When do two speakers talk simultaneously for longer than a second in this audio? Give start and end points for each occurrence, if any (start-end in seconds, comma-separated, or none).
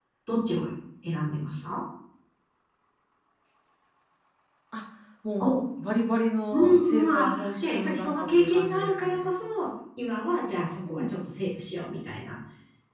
6.5-9.4